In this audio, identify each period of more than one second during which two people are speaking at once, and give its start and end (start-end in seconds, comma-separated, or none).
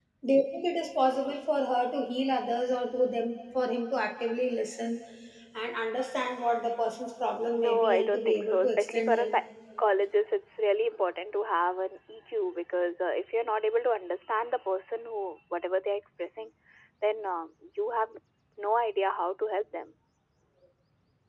7.7-9.3